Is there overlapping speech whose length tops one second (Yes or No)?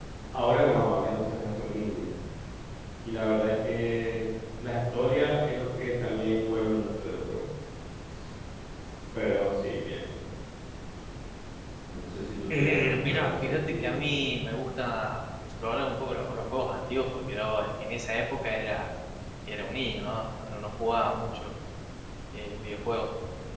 Yes